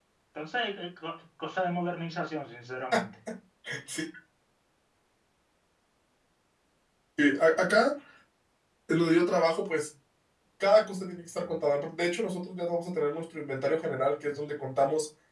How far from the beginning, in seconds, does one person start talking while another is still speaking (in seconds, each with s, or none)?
none